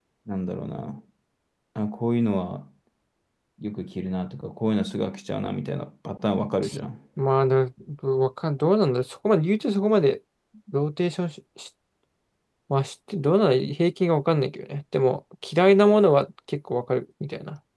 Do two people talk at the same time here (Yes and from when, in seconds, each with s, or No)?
No